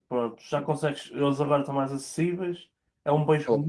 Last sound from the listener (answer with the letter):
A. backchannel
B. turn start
A